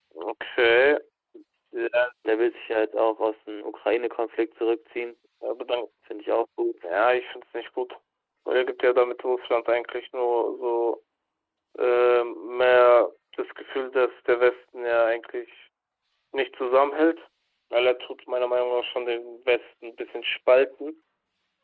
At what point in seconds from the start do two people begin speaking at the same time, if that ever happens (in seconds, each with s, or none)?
none